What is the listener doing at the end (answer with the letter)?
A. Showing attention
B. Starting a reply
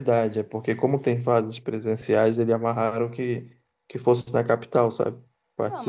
B